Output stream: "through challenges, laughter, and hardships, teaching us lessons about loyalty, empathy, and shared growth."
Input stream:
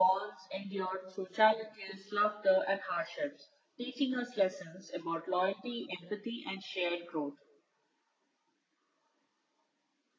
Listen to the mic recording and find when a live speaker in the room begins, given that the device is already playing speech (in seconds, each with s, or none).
none